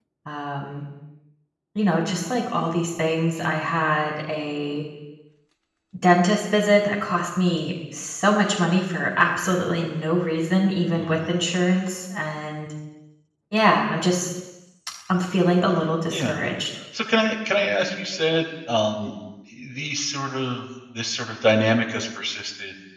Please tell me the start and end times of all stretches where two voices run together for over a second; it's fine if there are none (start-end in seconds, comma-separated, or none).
none